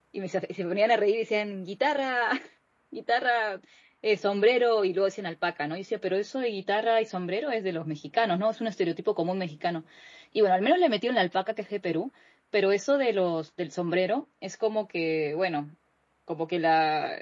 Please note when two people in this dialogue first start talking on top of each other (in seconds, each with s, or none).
none